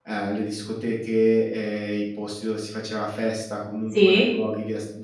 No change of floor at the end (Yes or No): Yes